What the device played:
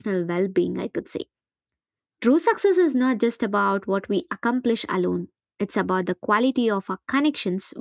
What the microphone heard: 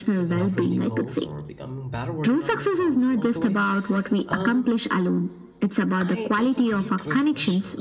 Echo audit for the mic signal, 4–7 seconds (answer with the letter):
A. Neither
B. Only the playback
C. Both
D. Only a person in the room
C